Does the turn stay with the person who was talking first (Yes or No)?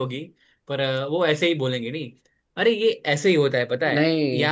Yes